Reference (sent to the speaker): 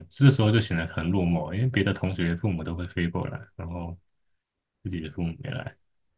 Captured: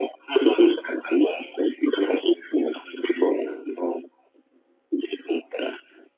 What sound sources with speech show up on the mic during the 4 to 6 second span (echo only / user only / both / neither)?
echo only